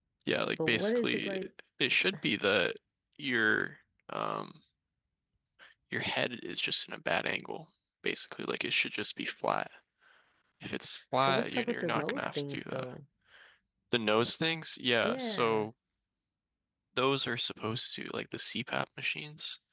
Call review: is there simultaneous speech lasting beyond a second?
Yes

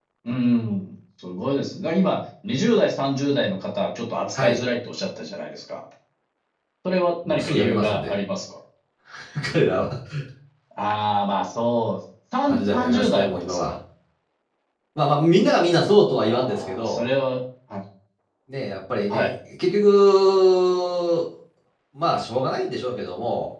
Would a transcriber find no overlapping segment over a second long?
No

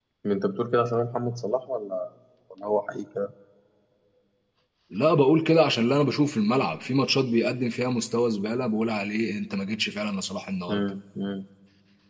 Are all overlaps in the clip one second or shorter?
Yes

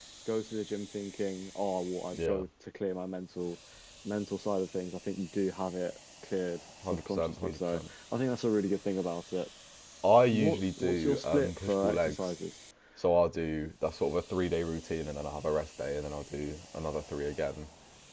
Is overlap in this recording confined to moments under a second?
No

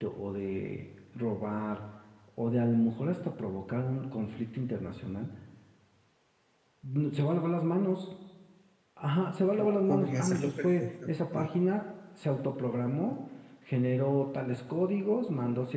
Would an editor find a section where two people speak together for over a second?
Yes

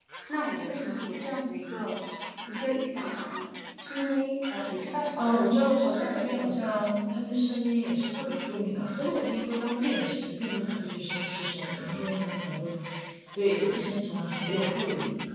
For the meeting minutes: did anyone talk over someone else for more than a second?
Yes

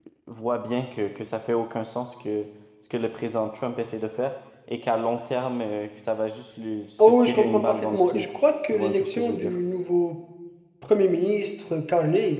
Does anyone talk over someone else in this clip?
Yes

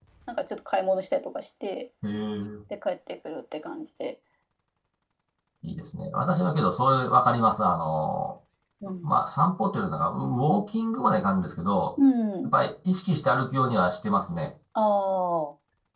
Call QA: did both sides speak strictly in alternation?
Yes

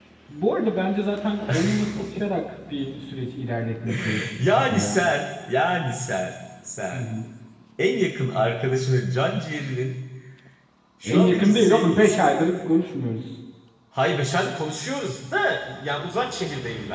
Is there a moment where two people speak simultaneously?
Yes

